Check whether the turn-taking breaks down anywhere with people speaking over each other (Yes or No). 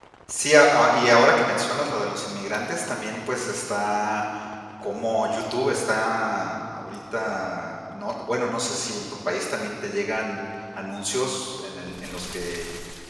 No